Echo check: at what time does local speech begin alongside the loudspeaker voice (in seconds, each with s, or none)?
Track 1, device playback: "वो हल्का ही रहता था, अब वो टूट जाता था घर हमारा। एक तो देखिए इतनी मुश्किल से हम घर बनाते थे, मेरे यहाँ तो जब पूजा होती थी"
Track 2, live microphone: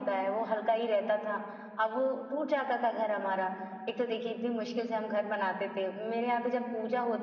none